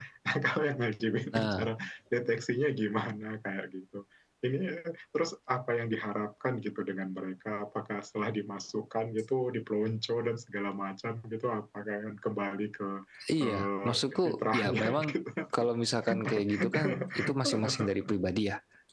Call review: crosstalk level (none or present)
present